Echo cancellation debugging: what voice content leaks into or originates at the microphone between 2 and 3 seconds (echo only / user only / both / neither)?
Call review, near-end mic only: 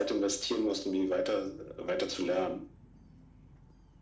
echo only